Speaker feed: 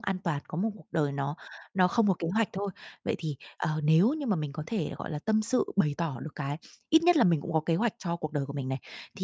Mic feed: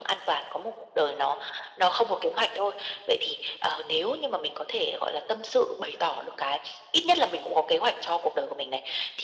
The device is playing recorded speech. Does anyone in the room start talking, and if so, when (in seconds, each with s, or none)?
none